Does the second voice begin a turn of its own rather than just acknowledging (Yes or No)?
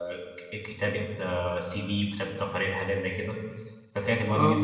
No